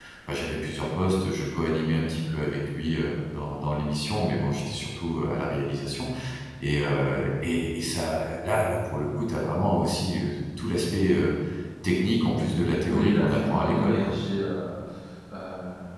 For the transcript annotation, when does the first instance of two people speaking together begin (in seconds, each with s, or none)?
12.9 s